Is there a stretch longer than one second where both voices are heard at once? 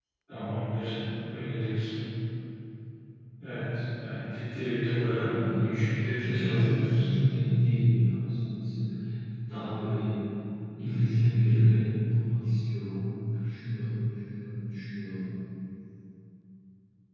Yes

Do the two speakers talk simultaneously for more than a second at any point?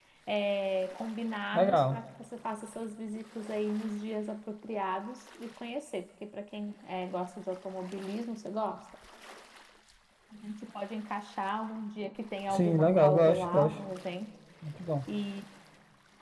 Yes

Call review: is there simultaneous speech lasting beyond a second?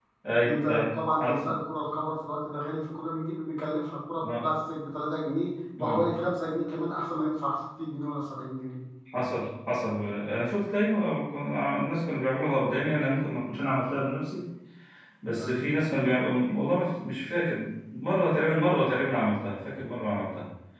No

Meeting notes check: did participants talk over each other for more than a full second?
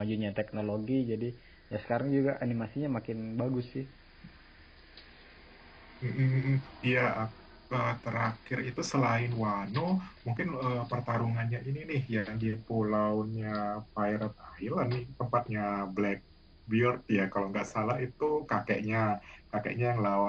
No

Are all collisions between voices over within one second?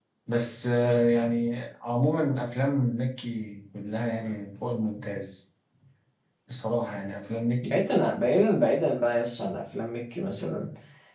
Yes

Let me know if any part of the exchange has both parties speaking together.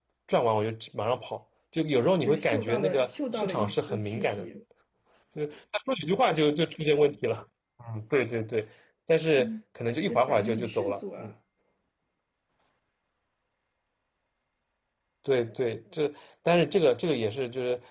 Yes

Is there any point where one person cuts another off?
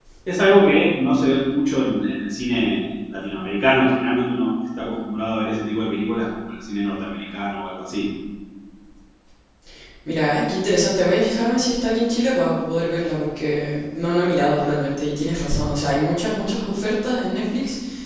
No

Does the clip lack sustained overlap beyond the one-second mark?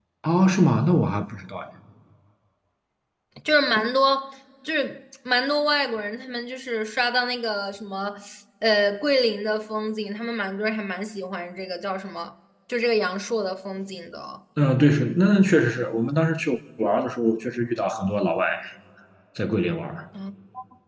Yes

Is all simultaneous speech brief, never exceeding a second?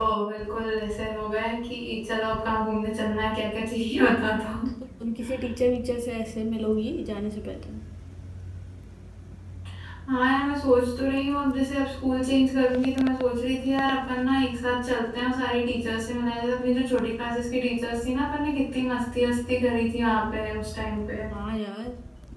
Yes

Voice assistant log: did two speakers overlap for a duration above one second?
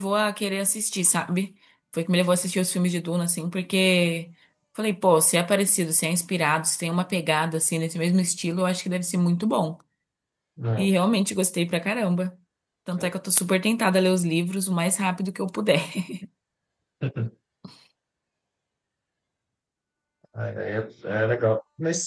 No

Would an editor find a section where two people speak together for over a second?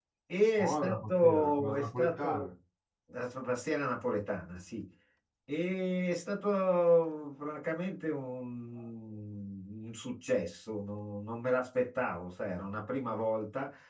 Yes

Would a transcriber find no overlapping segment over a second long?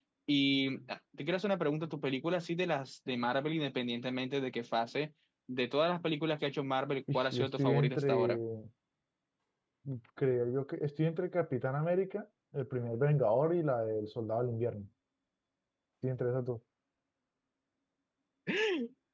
No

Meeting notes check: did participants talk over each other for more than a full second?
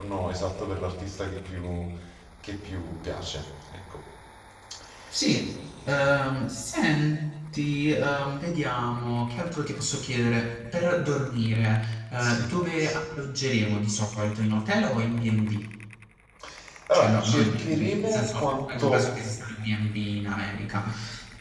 Yes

